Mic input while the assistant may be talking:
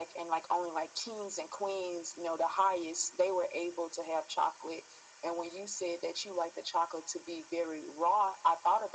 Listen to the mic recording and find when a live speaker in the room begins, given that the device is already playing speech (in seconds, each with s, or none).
none